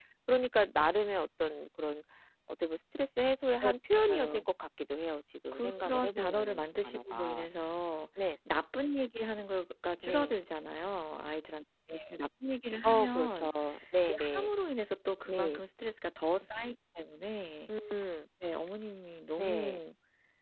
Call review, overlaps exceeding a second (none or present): present